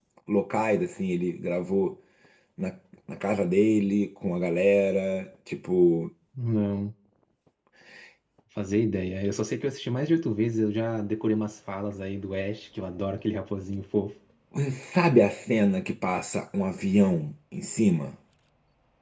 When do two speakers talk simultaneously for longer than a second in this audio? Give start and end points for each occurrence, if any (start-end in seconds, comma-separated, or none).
none